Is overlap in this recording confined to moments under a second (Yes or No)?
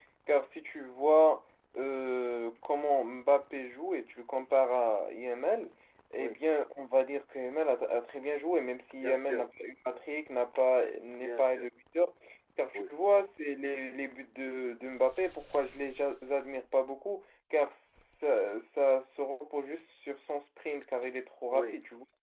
Yes